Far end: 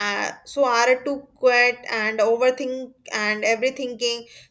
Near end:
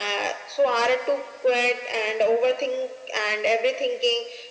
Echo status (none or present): present